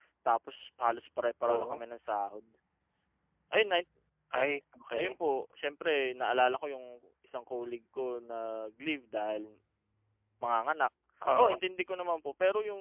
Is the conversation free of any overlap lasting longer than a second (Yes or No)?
Yes